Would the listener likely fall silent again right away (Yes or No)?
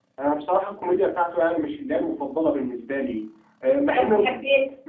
Yes